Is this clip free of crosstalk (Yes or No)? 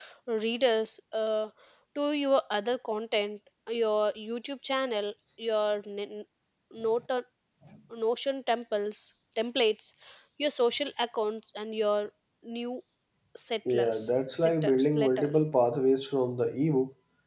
No